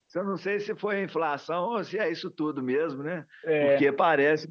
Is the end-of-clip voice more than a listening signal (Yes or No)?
No